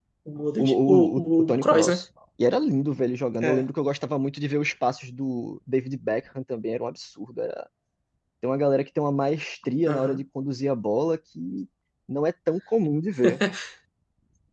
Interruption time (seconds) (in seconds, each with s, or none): 0.6 s